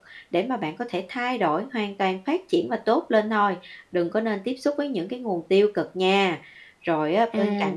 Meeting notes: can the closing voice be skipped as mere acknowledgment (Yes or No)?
Yes